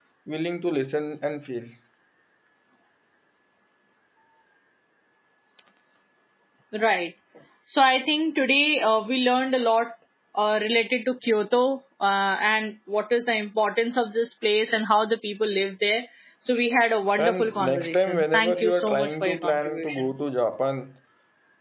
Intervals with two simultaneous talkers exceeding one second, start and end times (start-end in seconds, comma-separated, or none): 17.2-20.1